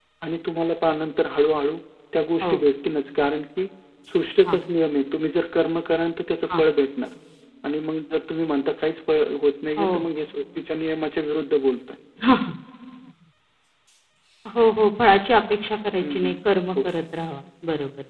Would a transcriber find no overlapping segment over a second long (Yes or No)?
Yes